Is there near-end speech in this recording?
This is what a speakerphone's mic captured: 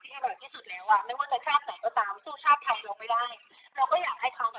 No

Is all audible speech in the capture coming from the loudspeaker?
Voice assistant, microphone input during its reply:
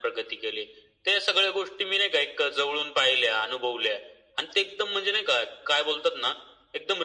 Yes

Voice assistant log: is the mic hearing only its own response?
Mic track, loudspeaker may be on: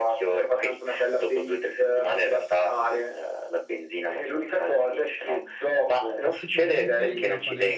No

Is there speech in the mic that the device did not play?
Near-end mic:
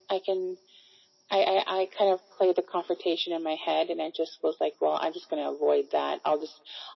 No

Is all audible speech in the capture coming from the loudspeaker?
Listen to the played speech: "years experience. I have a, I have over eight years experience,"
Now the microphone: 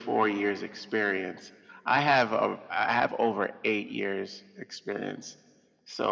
Yes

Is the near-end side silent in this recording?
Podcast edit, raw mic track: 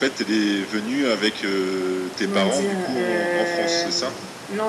No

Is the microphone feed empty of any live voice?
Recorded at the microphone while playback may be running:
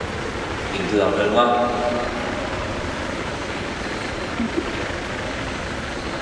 No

